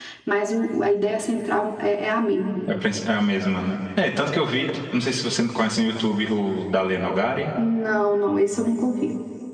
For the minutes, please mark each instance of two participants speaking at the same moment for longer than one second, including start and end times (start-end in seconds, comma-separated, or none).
none